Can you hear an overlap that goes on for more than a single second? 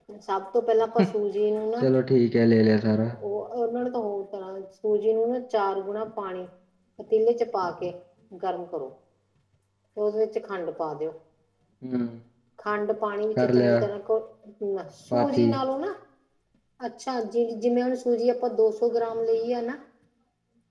No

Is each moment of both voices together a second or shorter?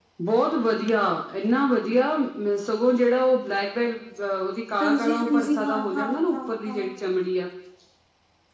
No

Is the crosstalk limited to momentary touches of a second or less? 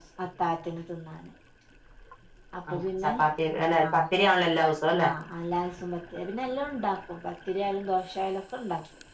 Yes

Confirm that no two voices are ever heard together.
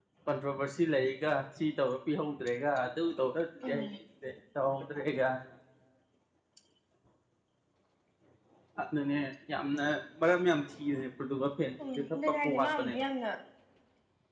No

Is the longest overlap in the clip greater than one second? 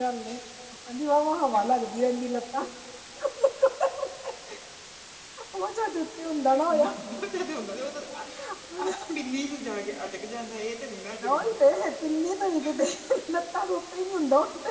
No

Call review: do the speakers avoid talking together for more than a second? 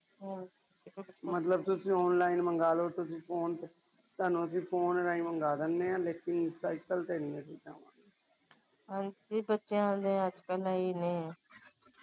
Yes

